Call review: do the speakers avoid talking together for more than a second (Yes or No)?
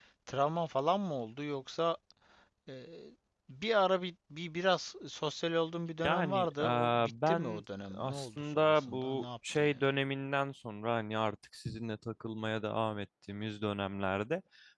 No